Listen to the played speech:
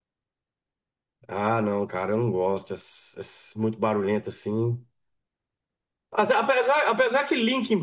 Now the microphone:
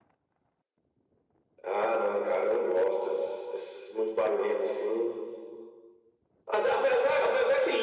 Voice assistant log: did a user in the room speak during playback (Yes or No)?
No